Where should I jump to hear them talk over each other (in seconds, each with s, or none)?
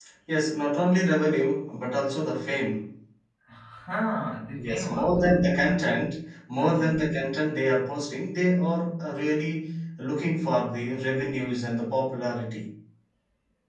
4.6 s